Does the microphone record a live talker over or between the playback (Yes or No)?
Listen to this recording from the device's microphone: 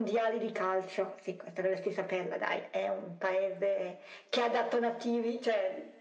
No